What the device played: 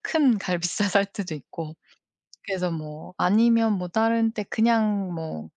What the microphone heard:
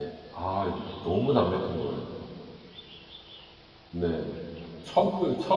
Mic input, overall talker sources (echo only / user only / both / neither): user only